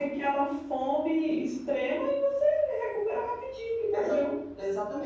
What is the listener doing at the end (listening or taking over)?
taking over